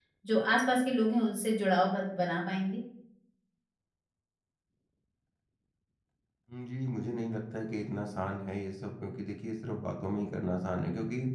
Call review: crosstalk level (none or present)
none